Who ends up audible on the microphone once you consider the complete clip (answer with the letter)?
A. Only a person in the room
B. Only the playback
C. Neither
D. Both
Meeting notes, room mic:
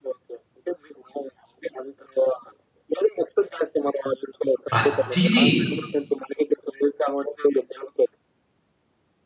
D